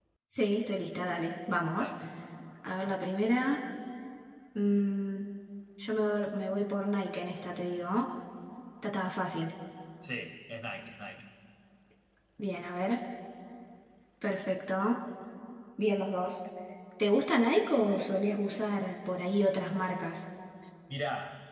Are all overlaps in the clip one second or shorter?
Yes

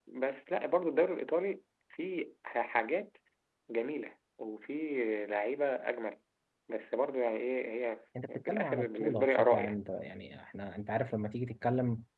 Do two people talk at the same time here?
Yes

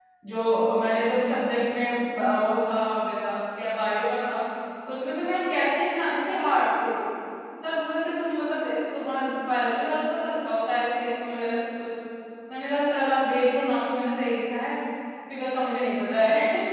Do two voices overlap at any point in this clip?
No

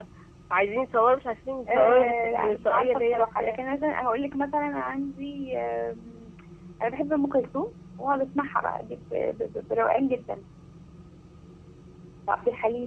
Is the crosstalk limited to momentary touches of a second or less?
No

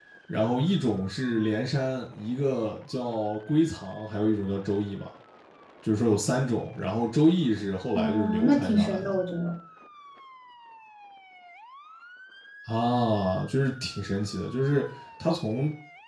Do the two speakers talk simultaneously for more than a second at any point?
Yes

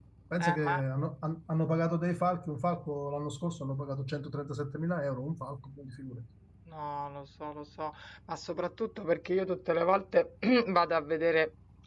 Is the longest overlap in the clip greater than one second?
No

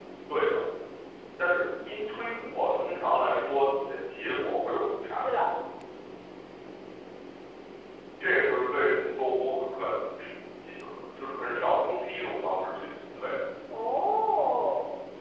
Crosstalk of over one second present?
No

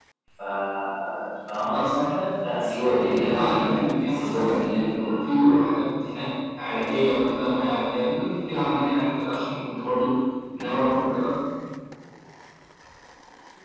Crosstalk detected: Yes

